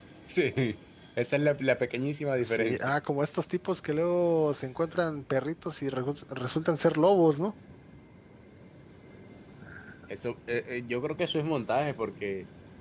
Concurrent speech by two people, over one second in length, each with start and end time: none

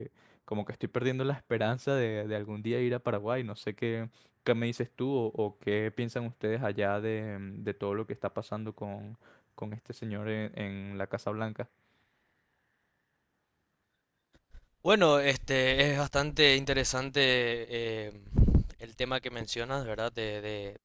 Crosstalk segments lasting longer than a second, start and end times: none

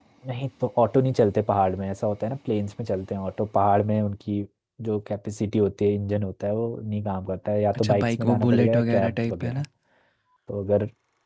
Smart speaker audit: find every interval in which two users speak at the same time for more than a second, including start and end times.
7.8-9.6

